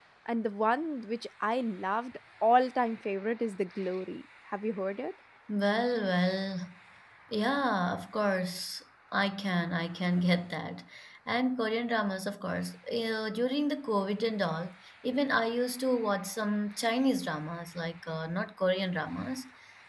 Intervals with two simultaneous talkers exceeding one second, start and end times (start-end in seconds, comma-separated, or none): none